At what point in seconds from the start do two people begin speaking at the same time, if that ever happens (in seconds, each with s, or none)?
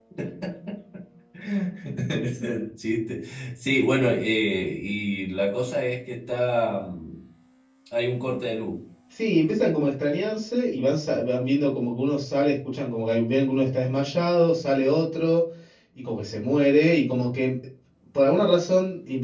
none